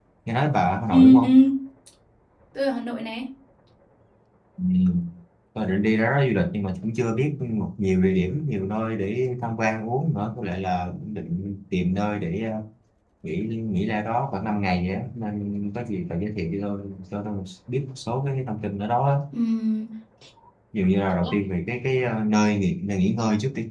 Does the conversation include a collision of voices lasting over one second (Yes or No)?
No